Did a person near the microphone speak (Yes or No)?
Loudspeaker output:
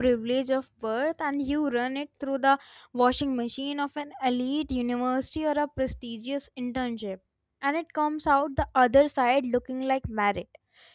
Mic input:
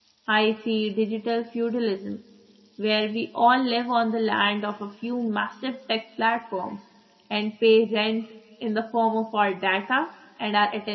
Yes